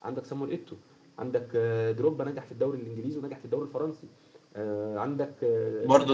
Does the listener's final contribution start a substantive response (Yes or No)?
Yes